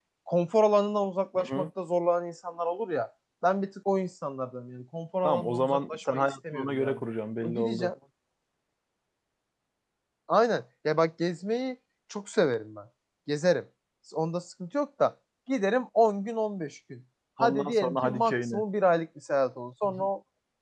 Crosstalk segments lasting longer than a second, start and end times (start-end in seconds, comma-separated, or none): 5.2-7.0, 17.4-18.6